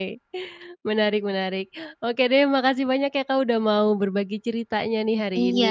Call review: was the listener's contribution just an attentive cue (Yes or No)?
No